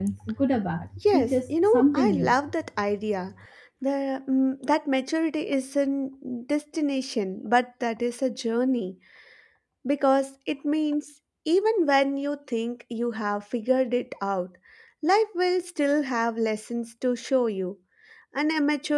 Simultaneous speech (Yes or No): Yes